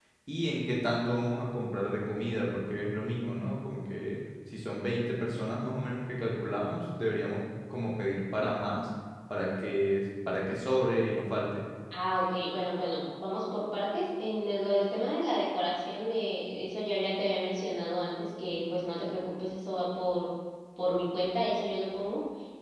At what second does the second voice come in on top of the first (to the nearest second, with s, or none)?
none